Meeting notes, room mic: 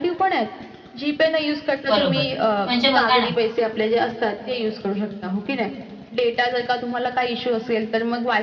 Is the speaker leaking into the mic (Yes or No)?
Yes